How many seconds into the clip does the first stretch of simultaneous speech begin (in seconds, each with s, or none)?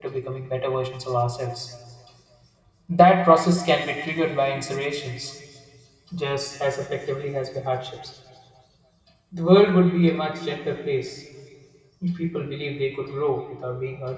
none